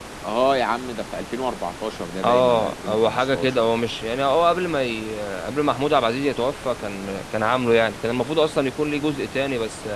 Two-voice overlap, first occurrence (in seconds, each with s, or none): 2.2 s